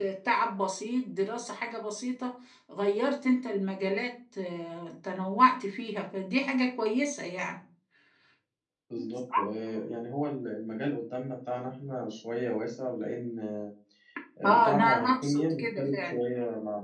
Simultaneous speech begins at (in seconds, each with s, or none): 14.5 s